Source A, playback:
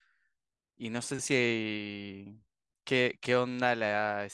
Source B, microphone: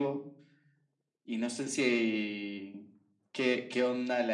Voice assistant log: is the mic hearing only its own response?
Yes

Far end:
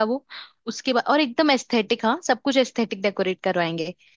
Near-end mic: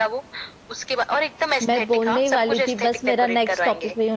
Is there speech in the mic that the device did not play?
Yes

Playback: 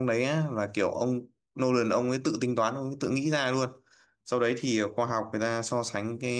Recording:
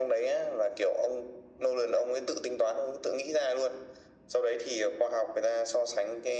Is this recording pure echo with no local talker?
Yes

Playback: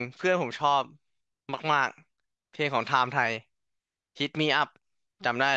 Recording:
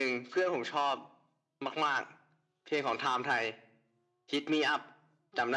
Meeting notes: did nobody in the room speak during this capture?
Yes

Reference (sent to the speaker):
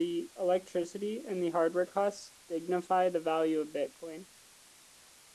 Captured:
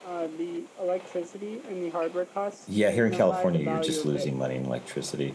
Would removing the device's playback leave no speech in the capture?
No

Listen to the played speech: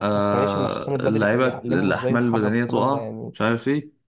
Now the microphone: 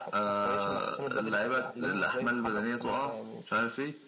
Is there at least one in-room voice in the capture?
No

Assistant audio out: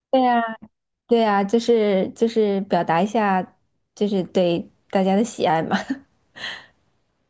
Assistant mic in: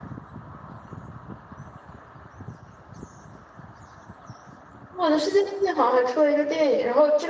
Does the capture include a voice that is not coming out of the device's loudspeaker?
Yes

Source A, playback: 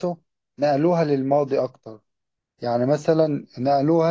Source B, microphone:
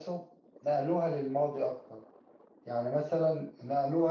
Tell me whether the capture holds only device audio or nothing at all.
Yes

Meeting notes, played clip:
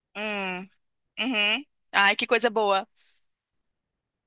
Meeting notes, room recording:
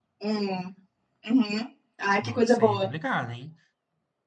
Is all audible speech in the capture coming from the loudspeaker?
No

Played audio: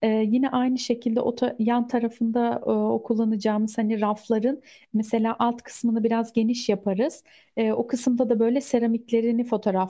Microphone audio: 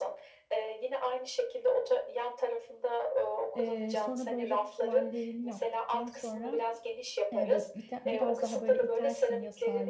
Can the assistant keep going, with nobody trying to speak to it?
No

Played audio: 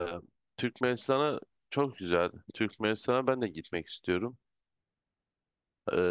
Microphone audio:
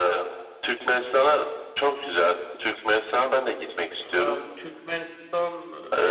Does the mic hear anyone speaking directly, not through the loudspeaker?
Yes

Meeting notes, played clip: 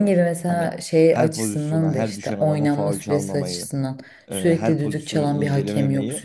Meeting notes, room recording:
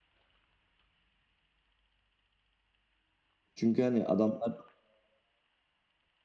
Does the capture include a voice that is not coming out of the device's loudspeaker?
Yes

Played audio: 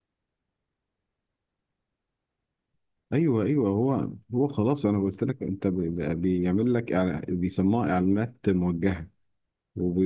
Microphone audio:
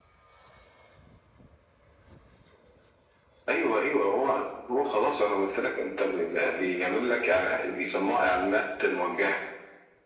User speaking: No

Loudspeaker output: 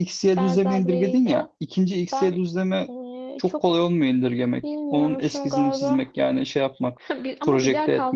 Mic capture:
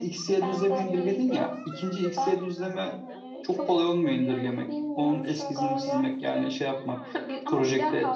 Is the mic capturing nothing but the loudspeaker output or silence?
No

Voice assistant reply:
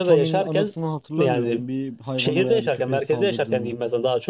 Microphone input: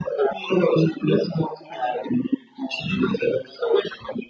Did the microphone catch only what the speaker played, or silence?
Yes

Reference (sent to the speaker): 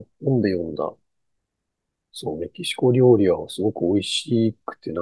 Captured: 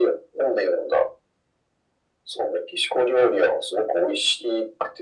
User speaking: No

